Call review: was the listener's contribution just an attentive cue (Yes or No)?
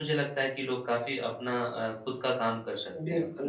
No